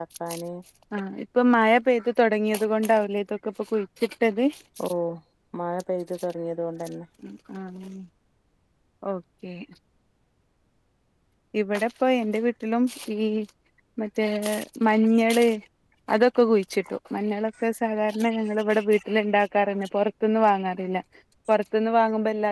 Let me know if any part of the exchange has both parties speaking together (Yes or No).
No